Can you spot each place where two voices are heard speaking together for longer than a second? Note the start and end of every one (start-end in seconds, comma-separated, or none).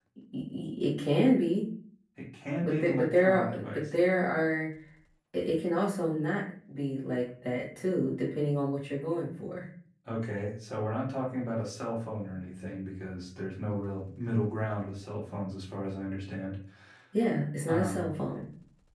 2.6-3.8